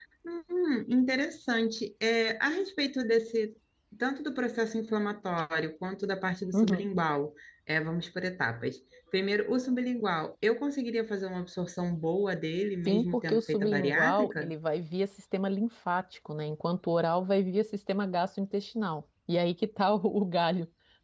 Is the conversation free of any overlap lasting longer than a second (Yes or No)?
No